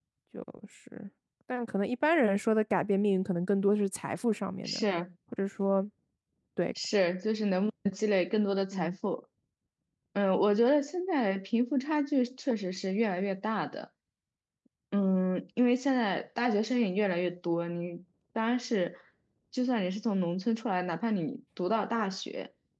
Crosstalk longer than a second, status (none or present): none